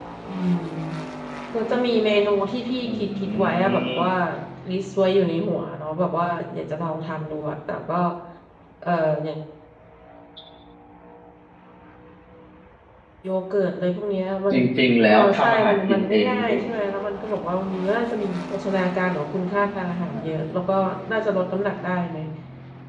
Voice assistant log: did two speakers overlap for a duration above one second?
Yes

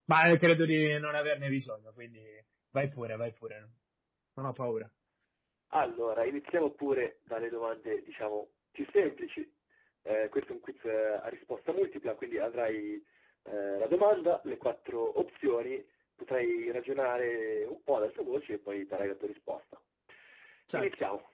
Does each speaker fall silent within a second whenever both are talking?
Yes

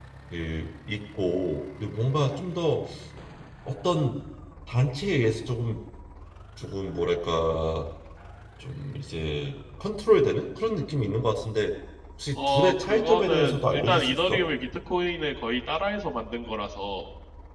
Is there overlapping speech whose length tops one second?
Yes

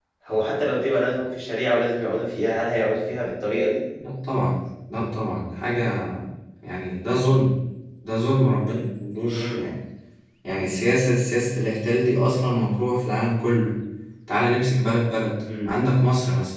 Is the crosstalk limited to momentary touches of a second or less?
Yes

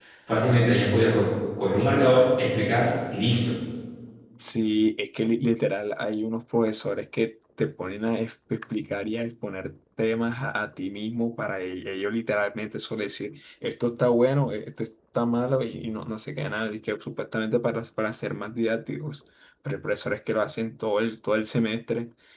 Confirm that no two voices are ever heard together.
Yes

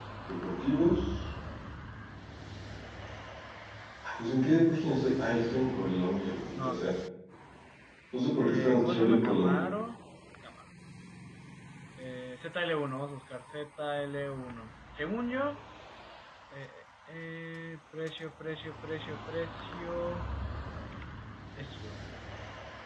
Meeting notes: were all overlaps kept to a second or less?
No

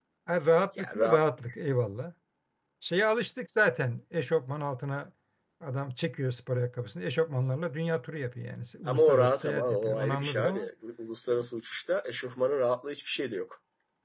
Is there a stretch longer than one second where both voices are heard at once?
Yes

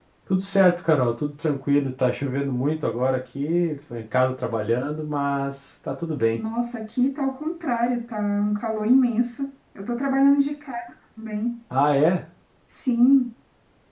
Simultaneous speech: No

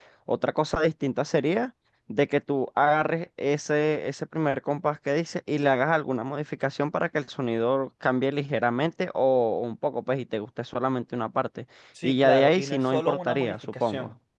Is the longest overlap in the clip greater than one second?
Yes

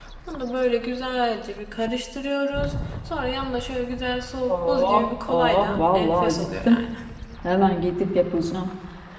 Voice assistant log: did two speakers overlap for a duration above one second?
Yes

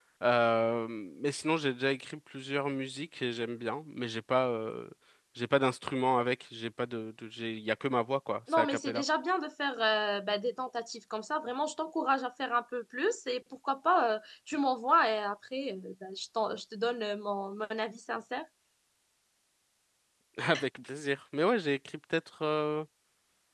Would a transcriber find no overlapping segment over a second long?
Yes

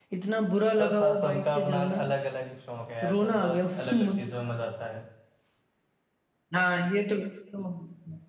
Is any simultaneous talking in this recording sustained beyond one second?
Yes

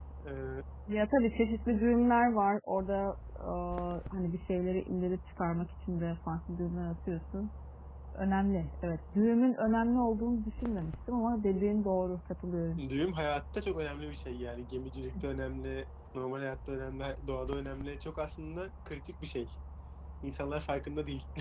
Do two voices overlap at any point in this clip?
No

